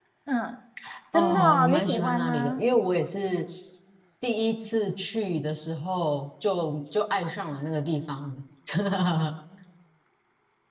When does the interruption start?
1.1 s

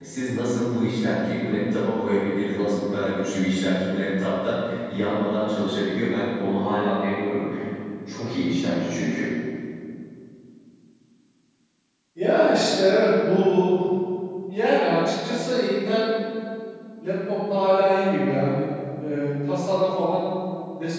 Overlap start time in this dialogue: none

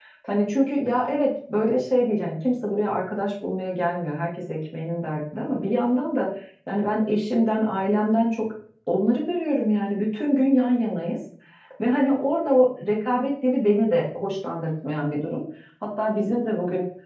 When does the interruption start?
none

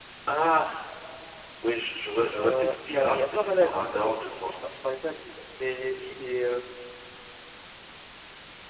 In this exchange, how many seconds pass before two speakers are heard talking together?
2.3 s

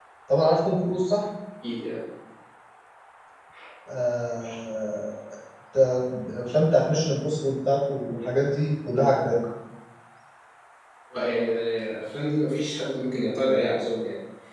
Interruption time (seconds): none

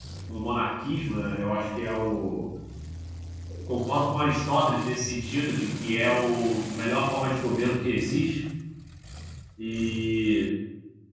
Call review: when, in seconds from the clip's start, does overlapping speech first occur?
none

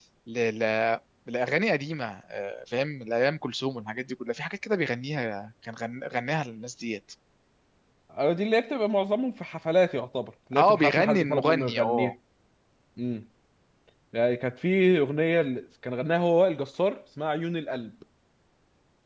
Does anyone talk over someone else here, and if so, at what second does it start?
10.5 s

